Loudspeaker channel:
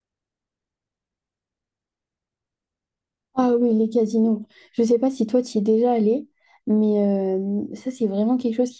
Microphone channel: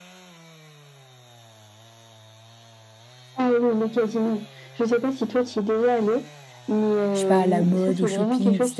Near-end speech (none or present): present